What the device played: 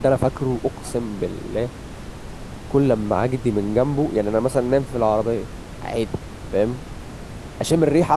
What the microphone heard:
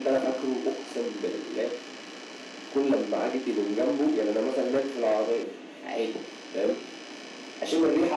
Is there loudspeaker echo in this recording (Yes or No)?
Yes